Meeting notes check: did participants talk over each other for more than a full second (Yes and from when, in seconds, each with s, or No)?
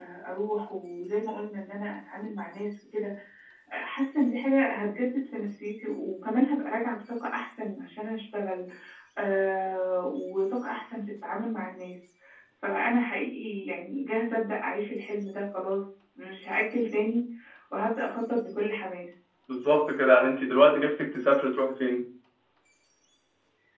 No